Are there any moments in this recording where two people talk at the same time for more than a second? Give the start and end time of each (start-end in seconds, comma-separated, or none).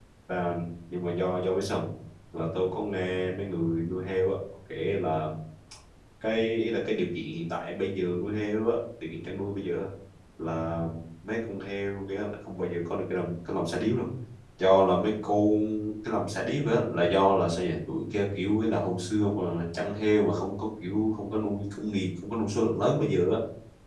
none